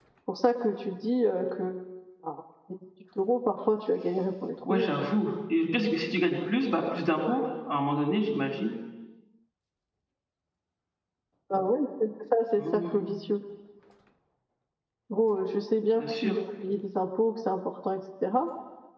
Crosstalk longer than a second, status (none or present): none